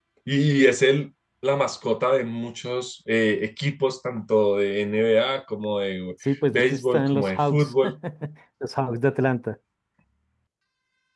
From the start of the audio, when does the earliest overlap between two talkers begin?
6.5 s

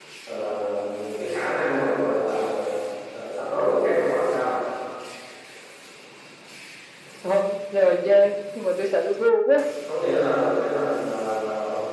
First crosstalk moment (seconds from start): none

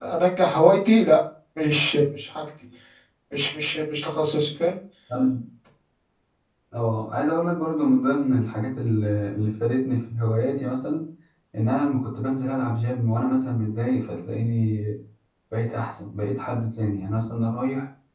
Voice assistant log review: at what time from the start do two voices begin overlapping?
none

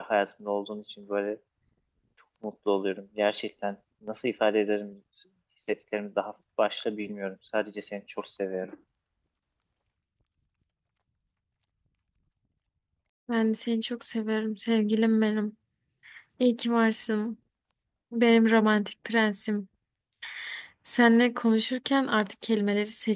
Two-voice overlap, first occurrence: none

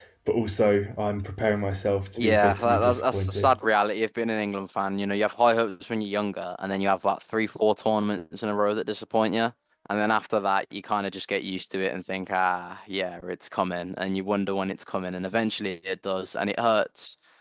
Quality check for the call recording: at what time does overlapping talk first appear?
2.2 s

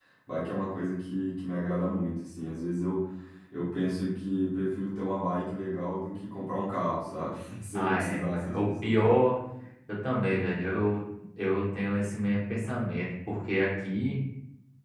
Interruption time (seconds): 7.8 s

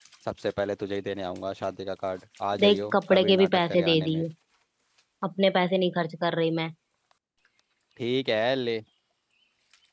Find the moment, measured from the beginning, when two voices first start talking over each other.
2.5 s

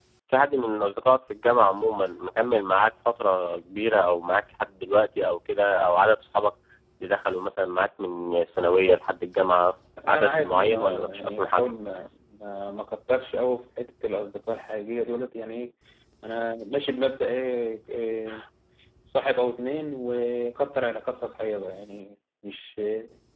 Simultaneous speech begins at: 10.0 s

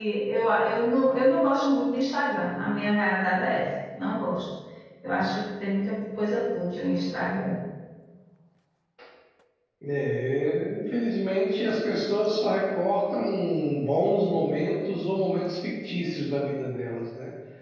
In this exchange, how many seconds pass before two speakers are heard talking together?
none

